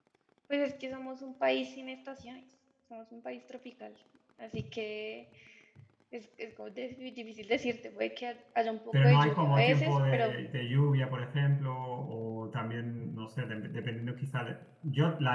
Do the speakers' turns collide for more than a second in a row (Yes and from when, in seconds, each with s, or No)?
Yes, from 8.9 s